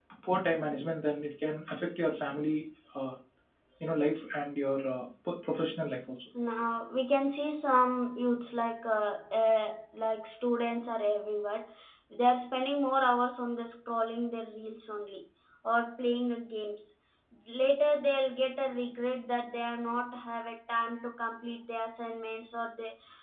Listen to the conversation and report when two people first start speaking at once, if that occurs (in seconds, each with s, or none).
none